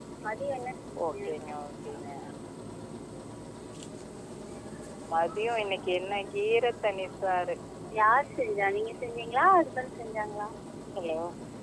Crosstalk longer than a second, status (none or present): none